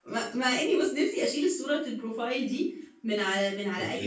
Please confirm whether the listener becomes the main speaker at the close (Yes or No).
No